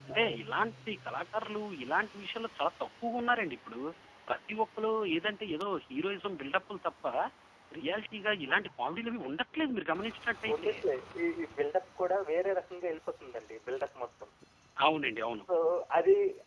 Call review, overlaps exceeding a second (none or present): none